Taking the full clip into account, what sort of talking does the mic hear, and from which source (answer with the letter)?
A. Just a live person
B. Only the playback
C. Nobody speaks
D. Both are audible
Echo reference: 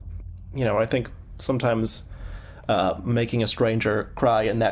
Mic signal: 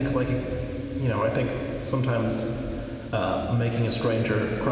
B